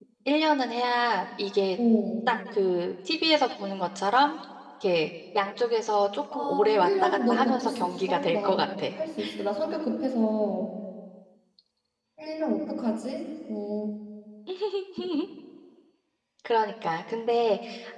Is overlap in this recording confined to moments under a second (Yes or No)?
No